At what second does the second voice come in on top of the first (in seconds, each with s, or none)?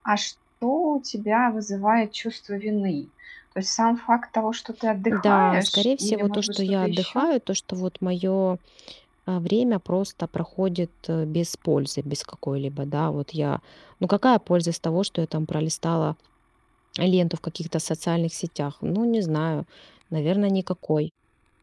5.1 s